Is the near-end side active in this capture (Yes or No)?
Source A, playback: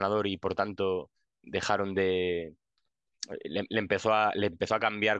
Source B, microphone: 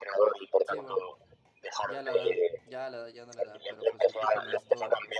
Yes